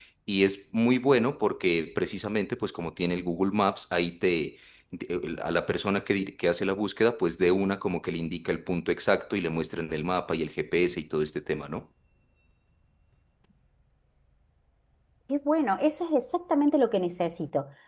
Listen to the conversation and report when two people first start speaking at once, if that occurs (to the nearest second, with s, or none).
none